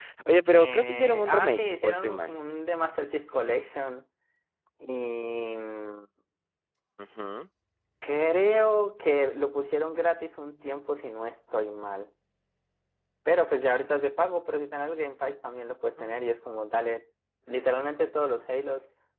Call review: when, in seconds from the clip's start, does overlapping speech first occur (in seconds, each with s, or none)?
0.5 s